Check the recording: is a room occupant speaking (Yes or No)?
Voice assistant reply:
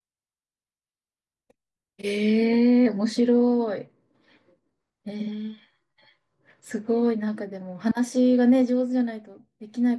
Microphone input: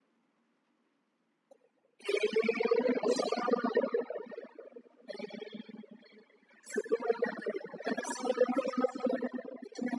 No